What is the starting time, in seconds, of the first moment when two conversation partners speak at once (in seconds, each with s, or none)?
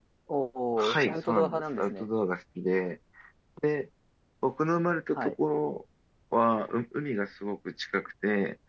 0.8 s